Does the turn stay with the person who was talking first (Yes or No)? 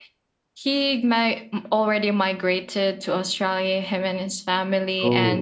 Yes